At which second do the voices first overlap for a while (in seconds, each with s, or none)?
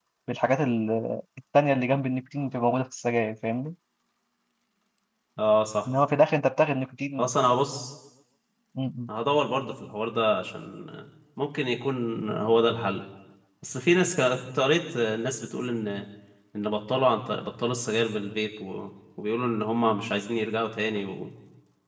none